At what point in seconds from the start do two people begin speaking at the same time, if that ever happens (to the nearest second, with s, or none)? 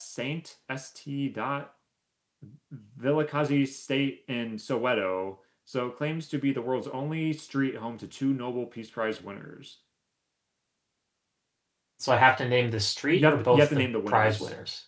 13 s